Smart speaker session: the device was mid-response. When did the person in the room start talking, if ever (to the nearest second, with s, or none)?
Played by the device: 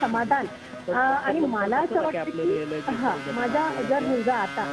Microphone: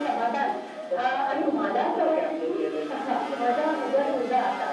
none